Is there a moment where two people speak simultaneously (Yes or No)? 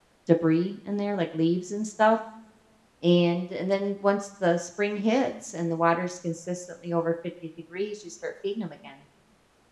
No